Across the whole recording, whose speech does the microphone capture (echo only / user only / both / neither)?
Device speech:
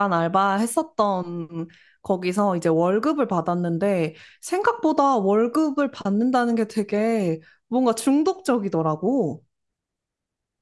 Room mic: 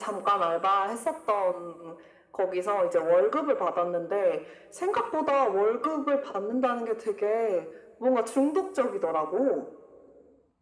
echo only